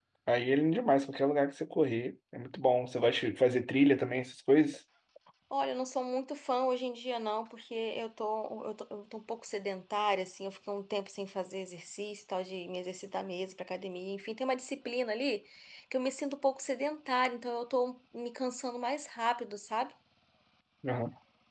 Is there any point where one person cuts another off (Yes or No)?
No